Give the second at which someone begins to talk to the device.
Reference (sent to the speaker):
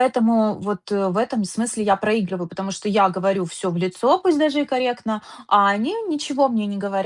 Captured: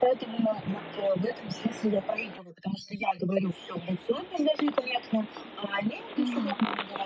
6.2 s

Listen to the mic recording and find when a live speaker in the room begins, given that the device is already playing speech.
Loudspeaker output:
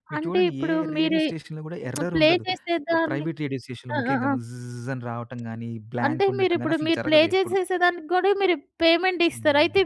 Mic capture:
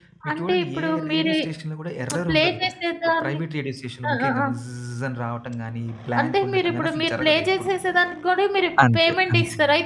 8.8 s

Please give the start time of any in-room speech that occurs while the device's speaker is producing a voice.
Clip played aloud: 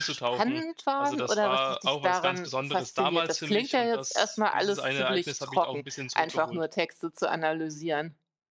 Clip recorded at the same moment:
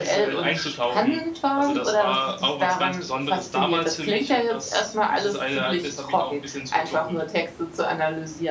none

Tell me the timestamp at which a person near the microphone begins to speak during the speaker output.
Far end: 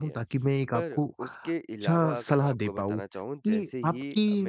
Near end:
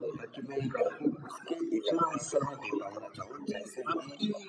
none

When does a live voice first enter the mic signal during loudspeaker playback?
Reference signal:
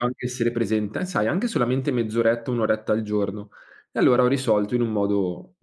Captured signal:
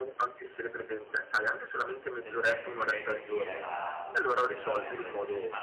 1.9 s

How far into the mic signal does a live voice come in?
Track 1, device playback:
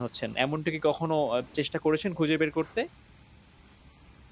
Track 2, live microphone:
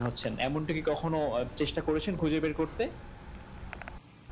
none

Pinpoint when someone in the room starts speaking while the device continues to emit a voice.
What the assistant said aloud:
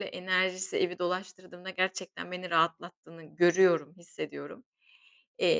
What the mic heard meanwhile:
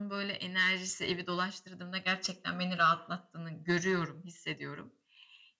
none

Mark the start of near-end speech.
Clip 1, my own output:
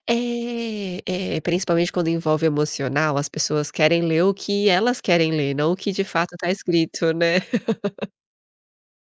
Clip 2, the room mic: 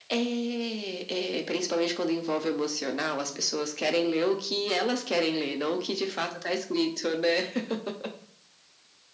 none

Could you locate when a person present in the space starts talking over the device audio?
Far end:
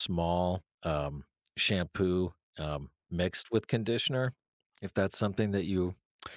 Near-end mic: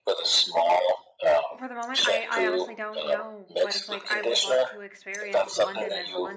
1.6 s

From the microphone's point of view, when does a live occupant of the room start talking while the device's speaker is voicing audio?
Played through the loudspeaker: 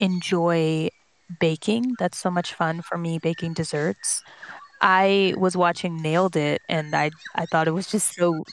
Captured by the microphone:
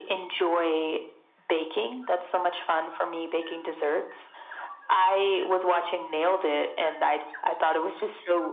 none

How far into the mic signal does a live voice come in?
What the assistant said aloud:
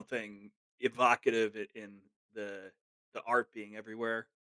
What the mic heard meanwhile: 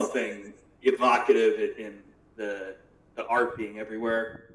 none

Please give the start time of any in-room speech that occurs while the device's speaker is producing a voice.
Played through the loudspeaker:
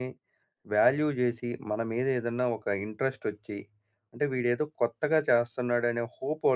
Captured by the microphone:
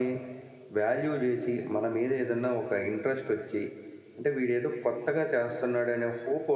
none

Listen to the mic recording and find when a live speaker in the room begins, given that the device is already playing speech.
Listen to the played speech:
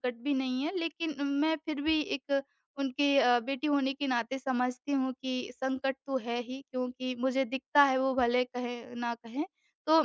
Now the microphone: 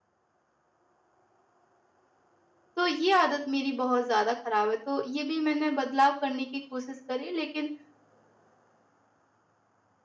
2.8 s

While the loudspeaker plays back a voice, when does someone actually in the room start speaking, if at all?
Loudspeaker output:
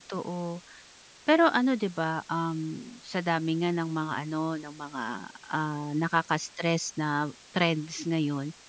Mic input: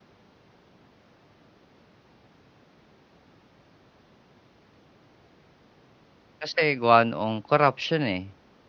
6.4 s

